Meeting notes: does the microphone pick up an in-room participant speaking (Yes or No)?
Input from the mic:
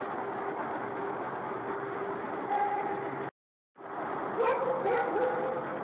No